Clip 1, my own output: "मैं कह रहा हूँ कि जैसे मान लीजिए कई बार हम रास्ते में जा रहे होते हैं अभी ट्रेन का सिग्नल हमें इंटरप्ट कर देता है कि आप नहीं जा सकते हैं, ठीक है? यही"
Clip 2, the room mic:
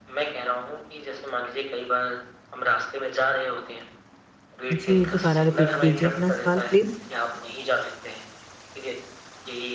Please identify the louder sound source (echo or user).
user